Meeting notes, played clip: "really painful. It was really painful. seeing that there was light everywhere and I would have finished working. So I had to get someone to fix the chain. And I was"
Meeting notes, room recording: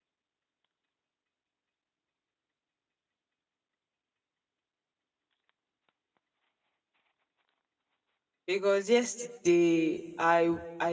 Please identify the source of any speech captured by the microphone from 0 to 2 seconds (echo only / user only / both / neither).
neither